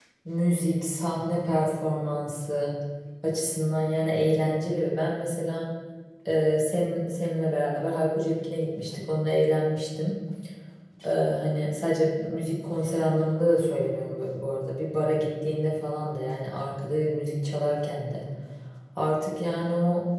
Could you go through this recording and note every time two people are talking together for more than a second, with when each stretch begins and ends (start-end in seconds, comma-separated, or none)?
none